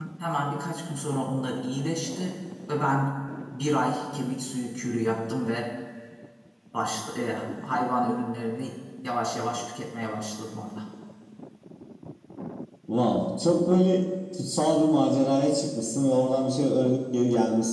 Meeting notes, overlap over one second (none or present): none